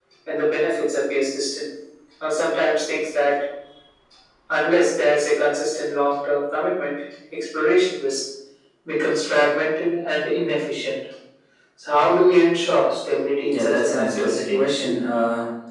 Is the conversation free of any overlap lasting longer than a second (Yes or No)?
No